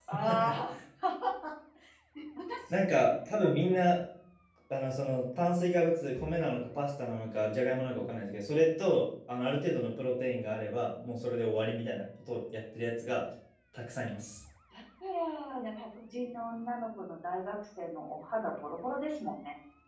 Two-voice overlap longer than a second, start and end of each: none

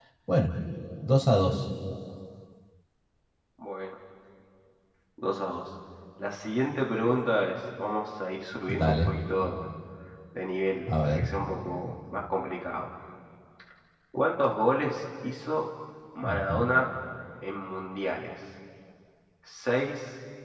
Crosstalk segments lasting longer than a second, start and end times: none

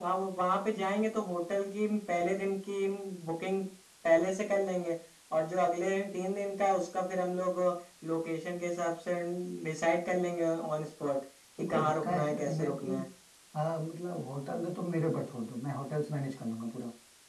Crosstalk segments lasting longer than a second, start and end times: 11.6-12.9

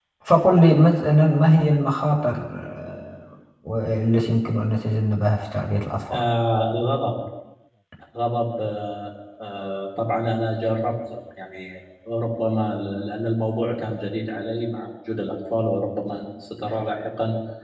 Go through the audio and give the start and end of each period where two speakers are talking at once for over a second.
none

